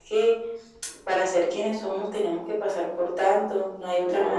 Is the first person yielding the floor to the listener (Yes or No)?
Yes